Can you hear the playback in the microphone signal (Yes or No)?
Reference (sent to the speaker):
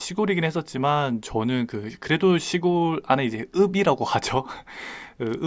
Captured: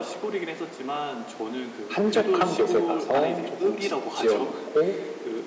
Yes